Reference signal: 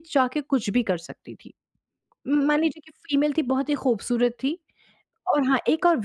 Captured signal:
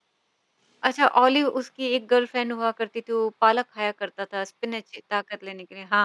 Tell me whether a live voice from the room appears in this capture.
Yes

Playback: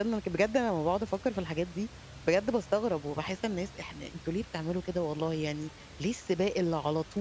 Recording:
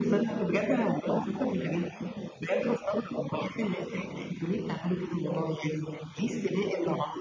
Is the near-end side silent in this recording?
Yes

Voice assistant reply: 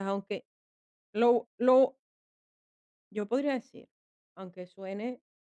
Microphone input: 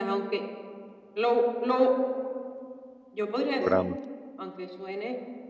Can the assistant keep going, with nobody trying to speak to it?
No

